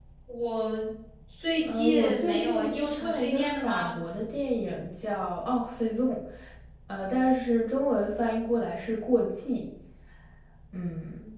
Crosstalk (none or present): present